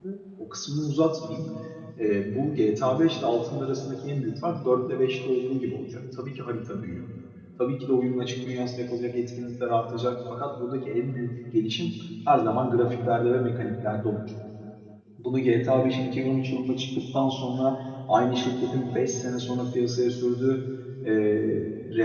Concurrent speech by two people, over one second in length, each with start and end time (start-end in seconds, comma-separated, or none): none